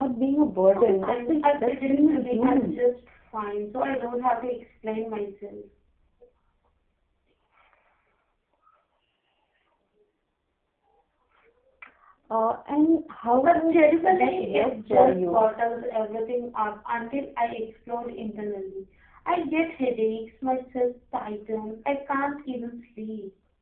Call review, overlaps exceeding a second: present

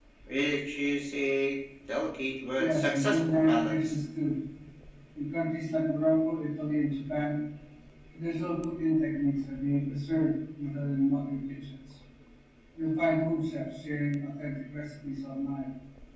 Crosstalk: present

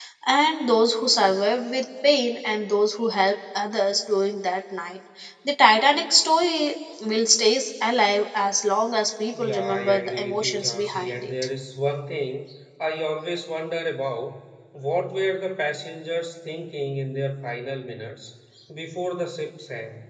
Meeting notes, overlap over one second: present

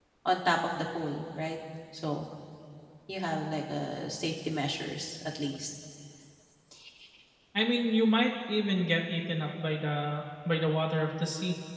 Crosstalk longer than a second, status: none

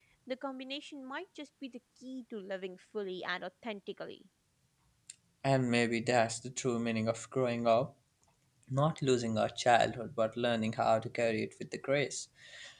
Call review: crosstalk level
none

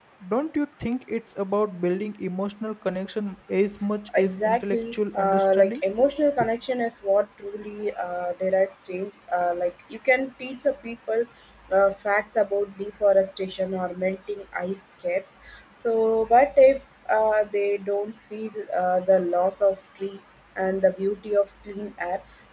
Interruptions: present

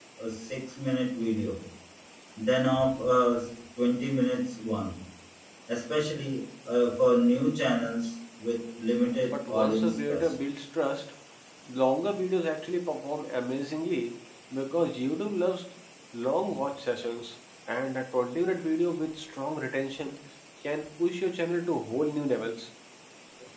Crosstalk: present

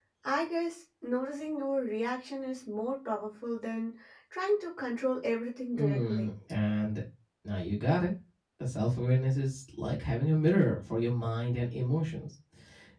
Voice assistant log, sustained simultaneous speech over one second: none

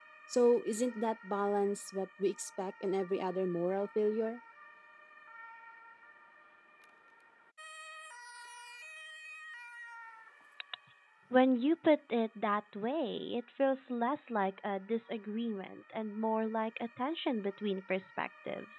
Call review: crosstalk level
none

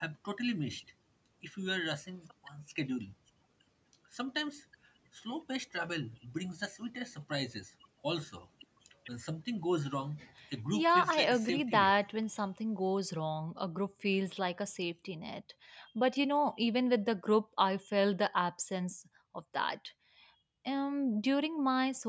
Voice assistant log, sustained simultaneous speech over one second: present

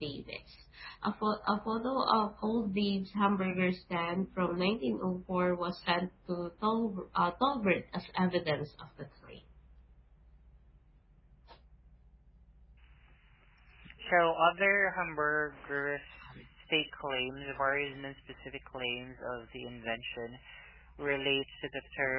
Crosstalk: none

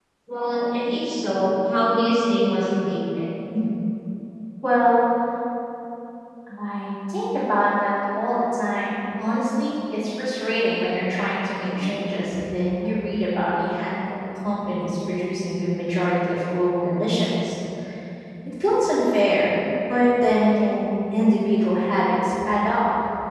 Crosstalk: none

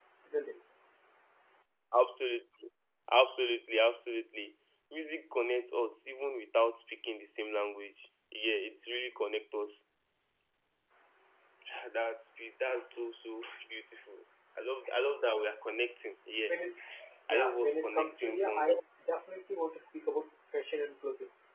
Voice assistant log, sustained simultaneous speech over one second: present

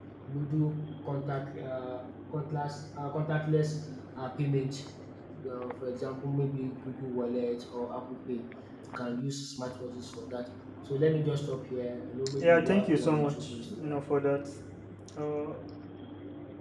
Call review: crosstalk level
present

